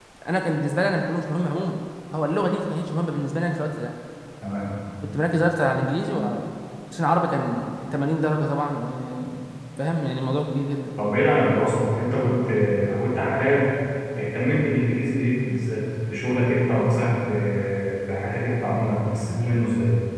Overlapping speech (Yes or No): No